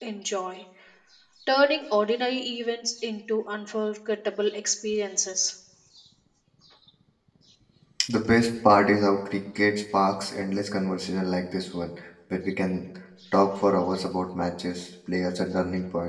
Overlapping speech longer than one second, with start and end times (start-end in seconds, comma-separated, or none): none